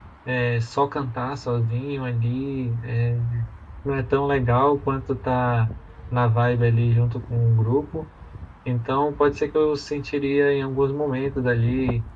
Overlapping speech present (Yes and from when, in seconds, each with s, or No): No